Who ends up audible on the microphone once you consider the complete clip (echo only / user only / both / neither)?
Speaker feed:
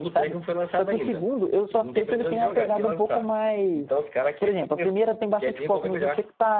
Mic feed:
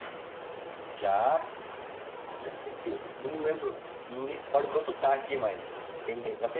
user only